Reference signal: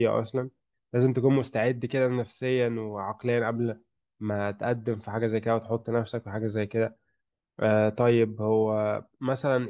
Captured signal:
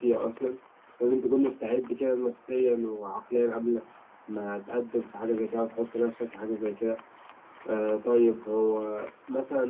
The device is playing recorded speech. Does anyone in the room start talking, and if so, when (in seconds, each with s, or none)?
none